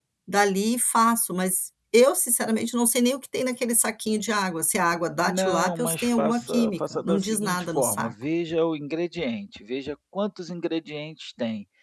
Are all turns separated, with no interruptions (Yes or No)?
No